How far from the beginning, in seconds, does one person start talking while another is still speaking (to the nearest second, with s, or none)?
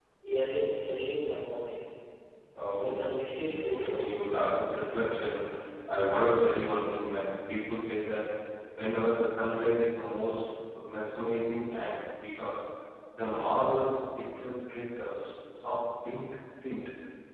3 s